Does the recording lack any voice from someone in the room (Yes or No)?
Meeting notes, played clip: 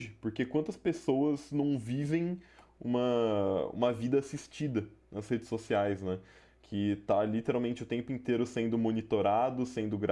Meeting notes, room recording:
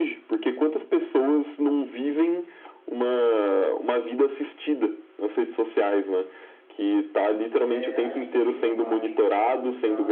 No